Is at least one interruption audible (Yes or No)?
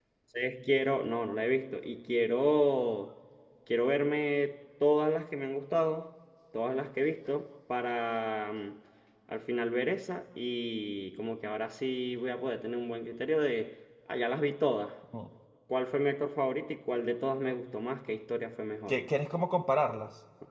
No